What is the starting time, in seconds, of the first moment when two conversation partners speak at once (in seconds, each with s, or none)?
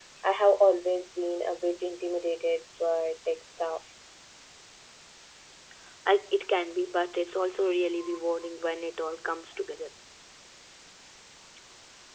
none